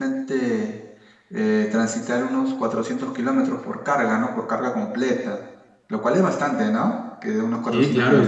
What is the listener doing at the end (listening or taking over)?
taking over